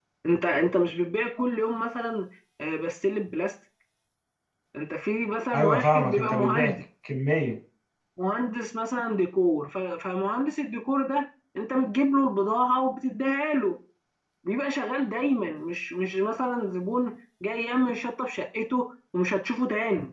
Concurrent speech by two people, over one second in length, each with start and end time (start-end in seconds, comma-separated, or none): 5.5-6.7